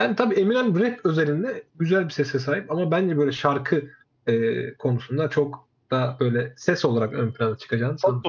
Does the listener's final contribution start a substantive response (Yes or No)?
Yes